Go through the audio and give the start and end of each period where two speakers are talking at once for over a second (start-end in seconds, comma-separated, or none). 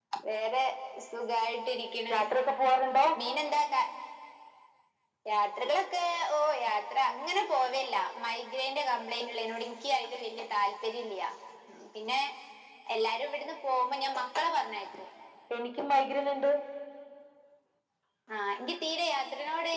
none